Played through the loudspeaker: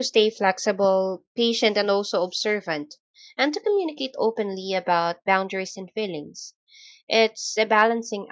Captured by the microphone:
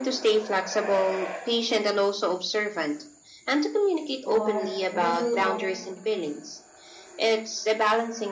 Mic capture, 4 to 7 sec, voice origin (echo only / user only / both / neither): both